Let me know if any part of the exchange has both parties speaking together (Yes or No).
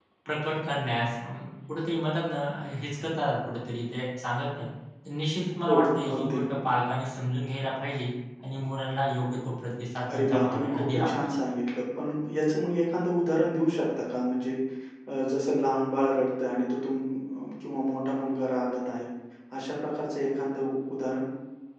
Yes